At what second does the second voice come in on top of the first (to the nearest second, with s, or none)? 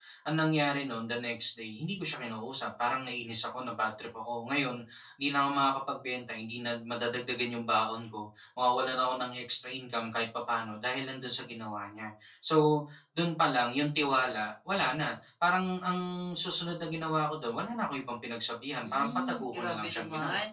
19 s